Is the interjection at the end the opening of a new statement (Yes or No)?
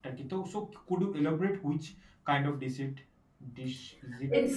Yes